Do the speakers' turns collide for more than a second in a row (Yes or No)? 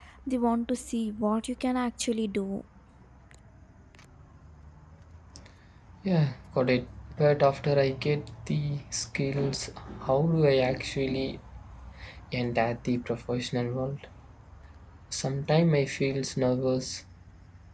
No